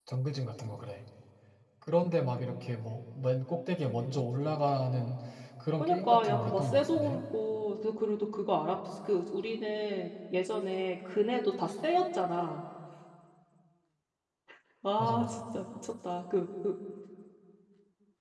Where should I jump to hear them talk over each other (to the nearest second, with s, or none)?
6 s